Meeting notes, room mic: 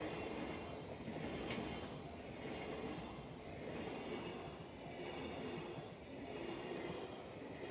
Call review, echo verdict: none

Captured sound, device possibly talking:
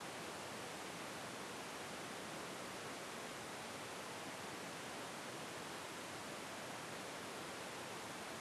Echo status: none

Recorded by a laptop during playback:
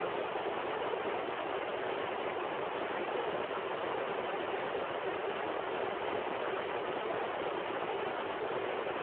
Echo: none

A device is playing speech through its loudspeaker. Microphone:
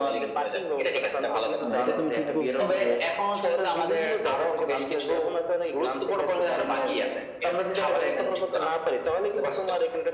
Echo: present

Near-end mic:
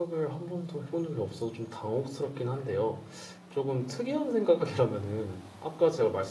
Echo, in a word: none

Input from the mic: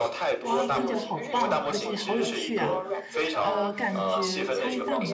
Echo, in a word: present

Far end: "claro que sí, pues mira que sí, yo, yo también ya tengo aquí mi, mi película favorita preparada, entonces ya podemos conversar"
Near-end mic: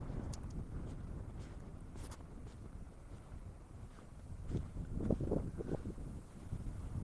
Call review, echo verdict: none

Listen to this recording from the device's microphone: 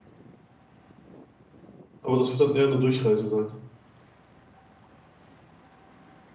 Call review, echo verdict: none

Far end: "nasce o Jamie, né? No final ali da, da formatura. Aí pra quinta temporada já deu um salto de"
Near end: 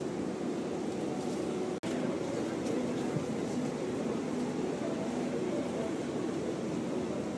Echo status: none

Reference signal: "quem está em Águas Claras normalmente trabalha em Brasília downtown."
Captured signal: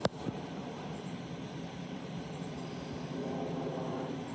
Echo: none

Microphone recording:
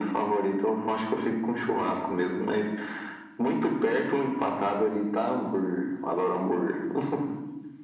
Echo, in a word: present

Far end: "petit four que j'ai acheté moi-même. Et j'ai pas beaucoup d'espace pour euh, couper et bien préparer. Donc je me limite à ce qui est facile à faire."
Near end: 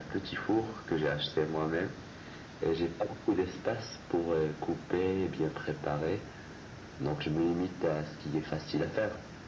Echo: present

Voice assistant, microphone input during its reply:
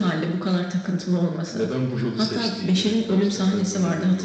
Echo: present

